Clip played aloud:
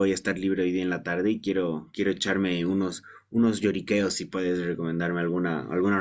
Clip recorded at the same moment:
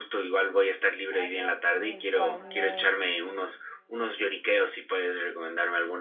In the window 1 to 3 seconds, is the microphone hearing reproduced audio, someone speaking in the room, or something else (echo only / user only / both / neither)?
both